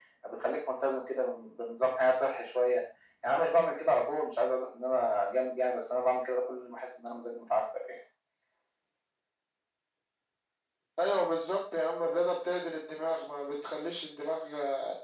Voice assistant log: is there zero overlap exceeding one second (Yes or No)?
Yes